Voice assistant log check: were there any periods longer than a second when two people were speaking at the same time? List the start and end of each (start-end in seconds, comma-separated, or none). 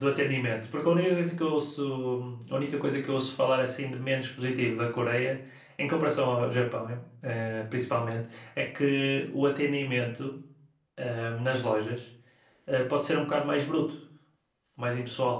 none